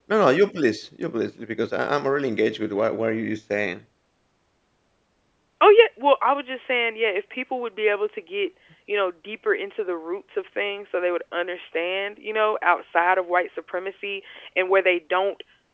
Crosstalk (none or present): none